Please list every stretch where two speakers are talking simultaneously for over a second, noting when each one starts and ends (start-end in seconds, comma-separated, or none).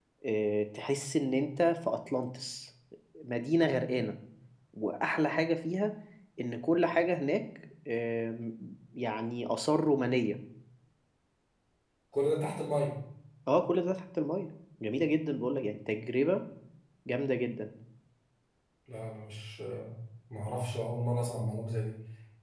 none